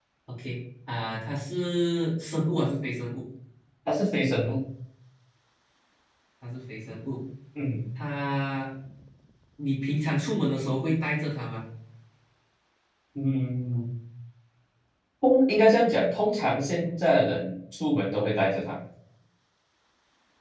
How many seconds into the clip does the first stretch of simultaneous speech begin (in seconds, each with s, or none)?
none